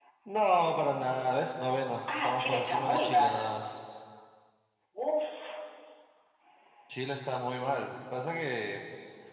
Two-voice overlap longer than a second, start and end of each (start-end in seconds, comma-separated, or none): 2.1-3.3